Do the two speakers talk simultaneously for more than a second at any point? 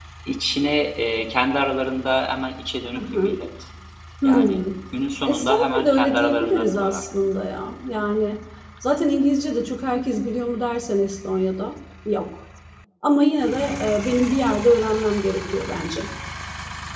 Yes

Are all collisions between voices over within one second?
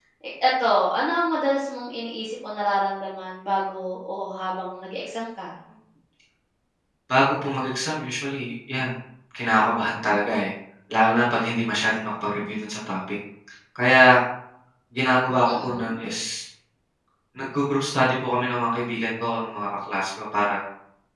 Yes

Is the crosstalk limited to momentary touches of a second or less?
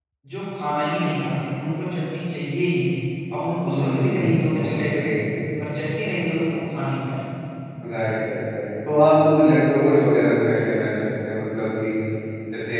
No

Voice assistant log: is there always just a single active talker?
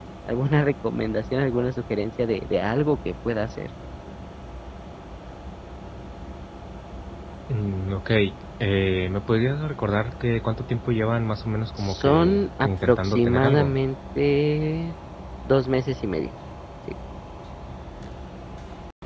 No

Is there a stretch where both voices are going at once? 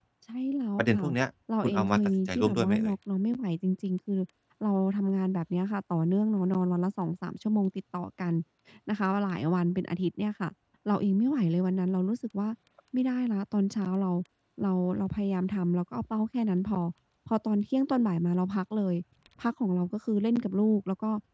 Yes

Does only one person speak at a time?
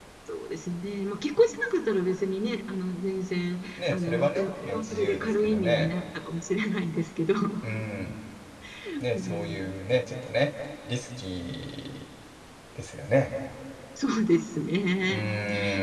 No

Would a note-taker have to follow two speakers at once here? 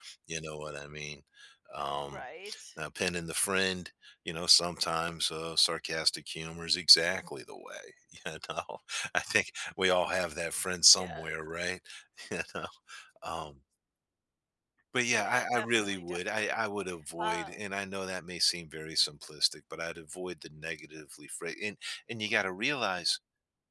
Yes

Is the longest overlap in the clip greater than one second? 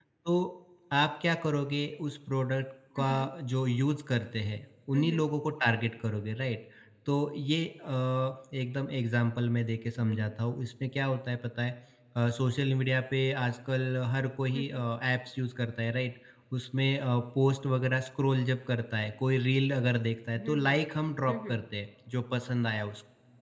No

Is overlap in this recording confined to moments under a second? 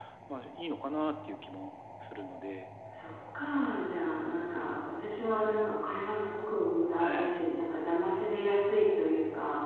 Yes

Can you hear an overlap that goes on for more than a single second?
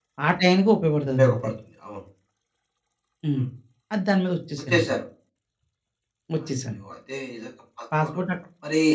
No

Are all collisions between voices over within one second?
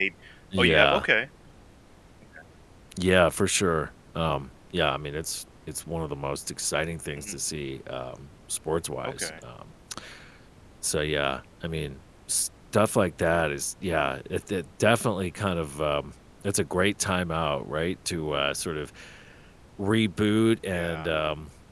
Yes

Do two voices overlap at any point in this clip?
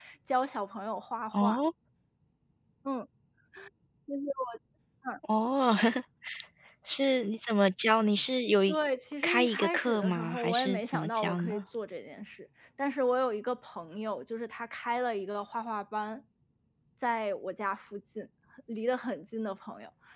Yes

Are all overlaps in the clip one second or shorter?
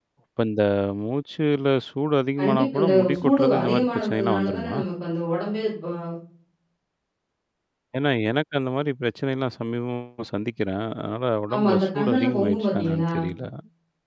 No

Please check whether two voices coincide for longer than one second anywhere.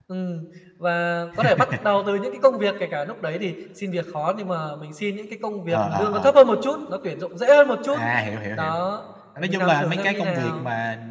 Yes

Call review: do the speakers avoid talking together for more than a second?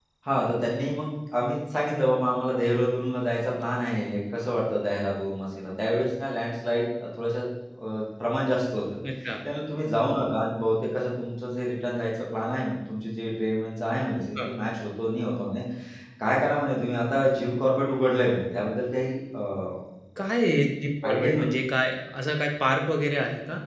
Yes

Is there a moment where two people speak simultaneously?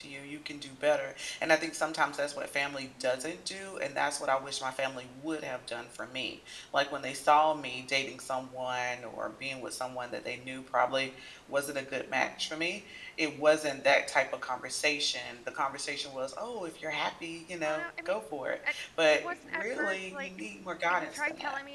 Yes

